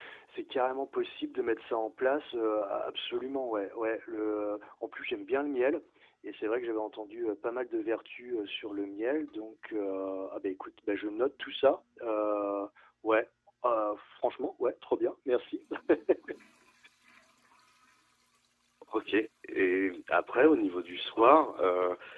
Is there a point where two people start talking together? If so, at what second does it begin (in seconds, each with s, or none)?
none